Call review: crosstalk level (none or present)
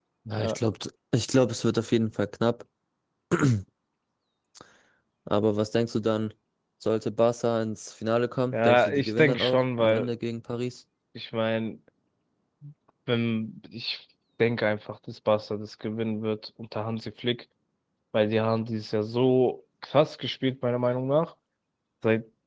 present